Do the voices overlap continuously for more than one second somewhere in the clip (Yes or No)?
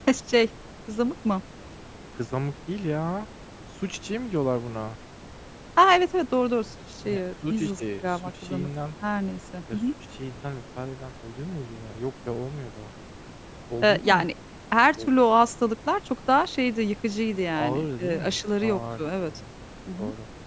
Yes